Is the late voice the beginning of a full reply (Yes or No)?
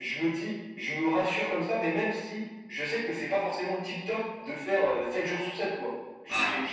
No